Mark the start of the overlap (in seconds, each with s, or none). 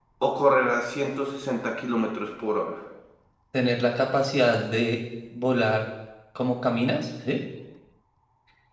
none